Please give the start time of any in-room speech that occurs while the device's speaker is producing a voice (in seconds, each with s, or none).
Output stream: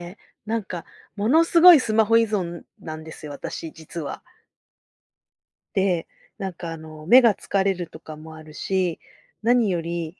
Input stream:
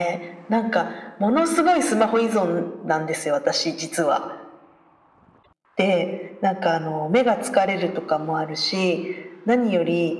none